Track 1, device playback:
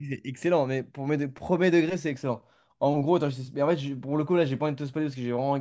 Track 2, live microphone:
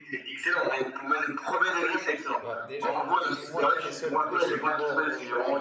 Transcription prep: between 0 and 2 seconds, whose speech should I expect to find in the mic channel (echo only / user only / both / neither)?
echo only